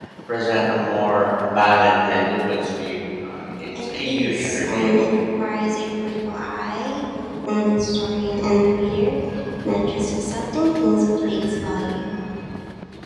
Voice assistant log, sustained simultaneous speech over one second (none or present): present